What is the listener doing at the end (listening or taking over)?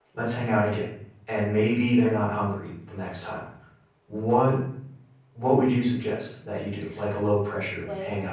taking over